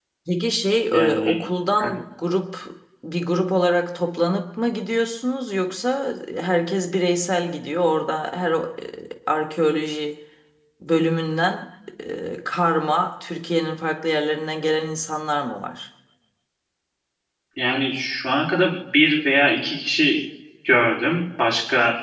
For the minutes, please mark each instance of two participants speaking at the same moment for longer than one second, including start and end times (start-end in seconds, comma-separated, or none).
none